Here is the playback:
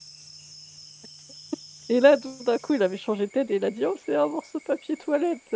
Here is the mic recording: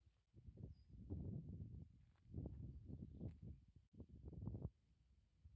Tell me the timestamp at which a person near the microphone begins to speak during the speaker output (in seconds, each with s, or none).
none